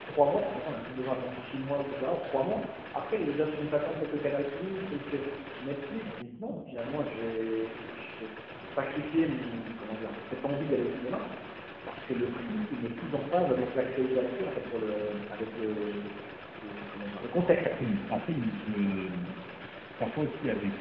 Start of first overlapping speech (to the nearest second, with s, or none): none